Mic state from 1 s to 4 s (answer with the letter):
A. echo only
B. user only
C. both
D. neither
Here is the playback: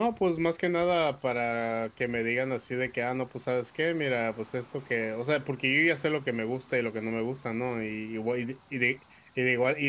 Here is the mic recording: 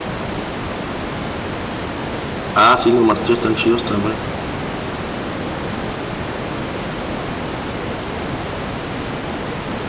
B